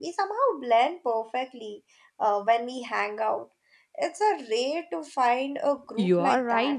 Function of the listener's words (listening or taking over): taking over